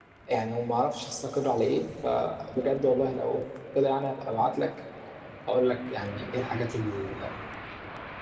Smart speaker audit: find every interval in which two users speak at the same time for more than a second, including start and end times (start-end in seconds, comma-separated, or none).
none